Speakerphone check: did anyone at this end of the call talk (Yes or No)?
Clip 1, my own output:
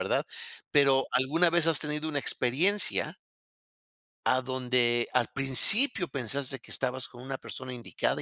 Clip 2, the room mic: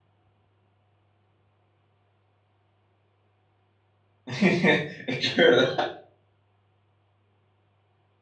Yes